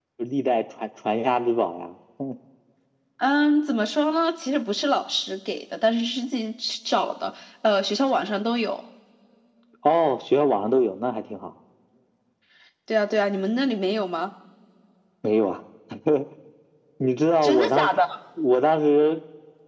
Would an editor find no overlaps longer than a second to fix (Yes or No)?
Yes